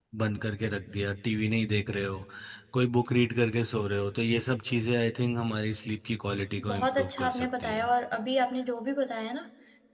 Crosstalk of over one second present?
Yes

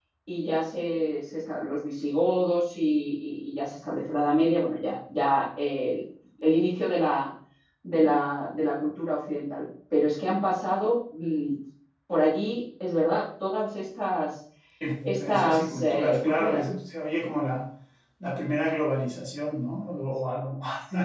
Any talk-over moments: Yes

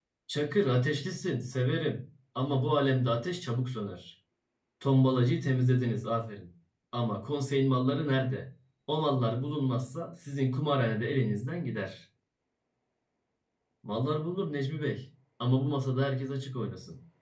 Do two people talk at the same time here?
No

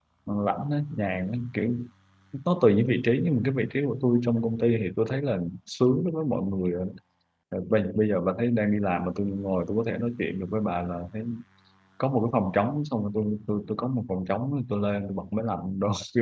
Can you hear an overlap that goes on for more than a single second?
No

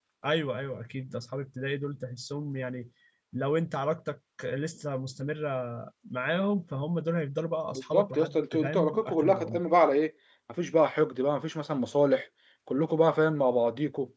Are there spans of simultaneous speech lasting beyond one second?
Yes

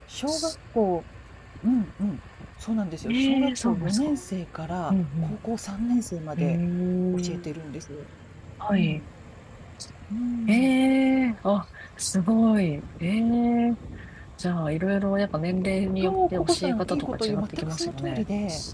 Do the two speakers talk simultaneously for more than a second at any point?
Yes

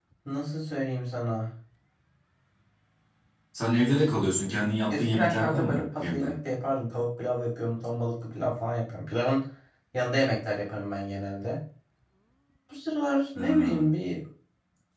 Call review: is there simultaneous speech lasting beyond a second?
Yes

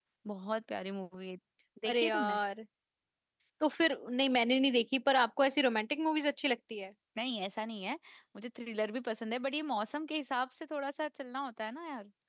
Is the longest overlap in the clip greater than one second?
No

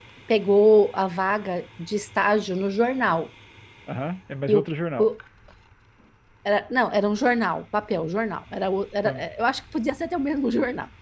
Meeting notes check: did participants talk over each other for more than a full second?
No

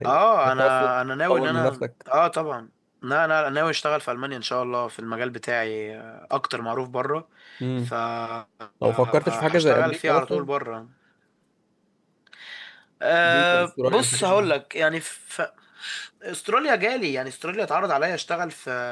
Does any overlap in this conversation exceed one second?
Yes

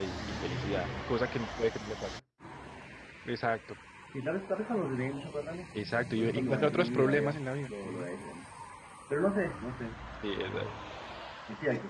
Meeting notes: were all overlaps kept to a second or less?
No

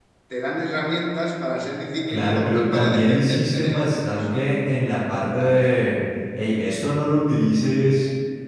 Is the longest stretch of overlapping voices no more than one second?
No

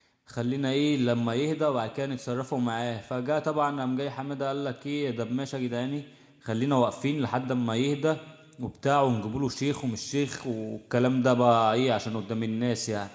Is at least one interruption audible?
No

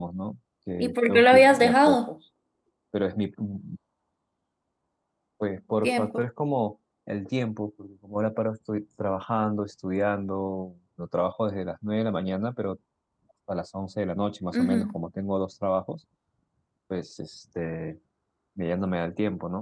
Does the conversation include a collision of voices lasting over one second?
Yes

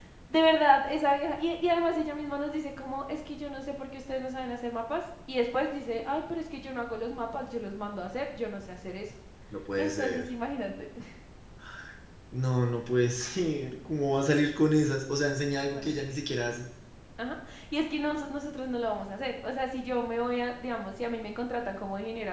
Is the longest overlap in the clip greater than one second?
No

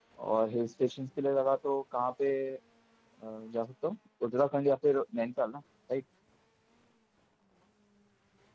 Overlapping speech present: No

